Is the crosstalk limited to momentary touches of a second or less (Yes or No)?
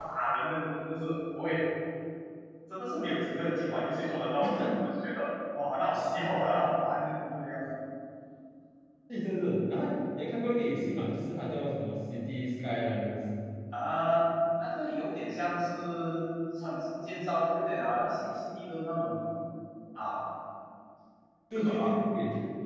Yes